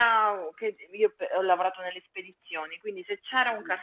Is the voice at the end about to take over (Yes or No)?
No